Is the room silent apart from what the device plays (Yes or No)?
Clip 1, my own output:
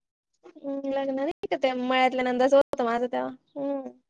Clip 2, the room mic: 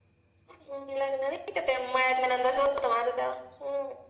Yes